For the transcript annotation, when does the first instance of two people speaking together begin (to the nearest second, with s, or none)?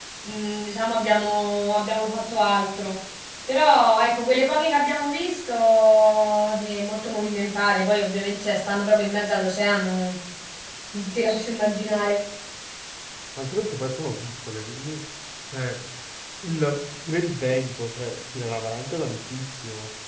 none